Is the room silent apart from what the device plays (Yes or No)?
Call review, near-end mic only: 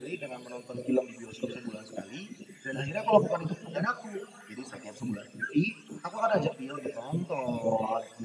Yes